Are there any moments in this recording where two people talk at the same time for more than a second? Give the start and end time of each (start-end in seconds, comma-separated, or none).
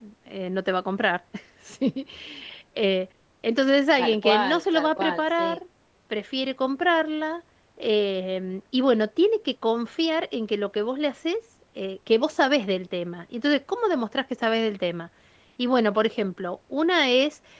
4.0-5.6